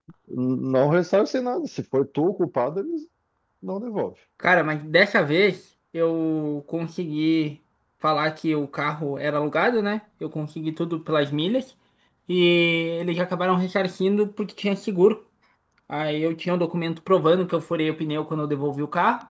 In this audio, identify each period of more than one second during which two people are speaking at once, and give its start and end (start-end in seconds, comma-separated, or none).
none